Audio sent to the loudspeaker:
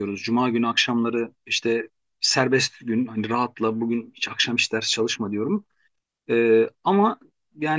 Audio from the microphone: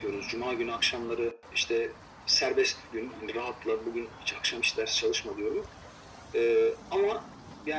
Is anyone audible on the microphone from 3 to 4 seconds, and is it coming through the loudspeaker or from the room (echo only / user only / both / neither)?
echo only